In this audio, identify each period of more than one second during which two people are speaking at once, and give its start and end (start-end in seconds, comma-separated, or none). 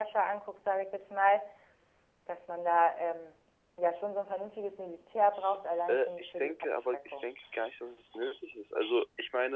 5.9-7.3